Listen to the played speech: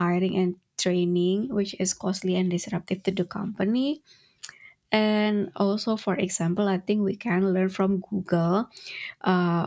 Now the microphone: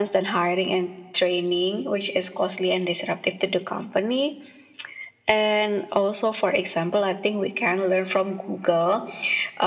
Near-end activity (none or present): none